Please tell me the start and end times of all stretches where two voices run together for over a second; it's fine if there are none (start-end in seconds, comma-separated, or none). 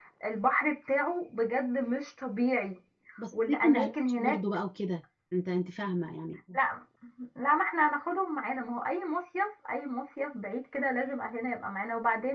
3.3-4.6